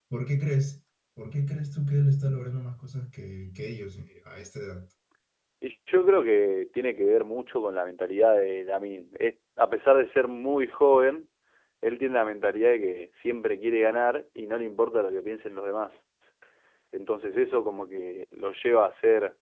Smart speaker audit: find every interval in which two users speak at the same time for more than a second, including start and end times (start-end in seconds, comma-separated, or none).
none